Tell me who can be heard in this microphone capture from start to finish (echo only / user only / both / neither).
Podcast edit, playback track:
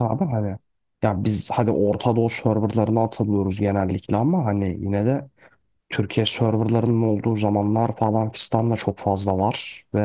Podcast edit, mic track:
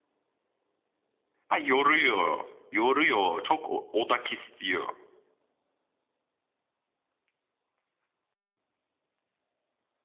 user only